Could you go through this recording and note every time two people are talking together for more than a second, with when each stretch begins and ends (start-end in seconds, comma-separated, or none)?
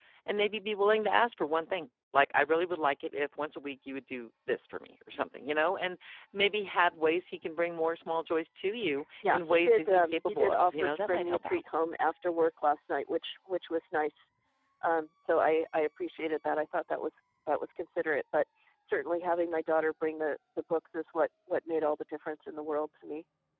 9.3-11.6